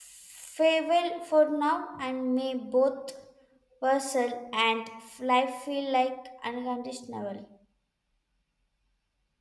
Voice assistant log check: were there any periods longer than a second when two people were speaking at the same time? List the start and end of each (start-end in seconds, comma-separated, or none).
none